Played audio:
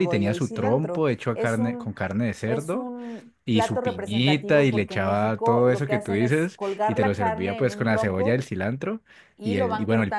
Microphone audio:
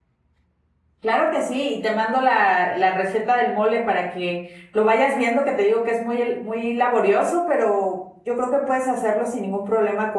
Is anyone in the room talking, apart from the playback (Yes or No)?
Yes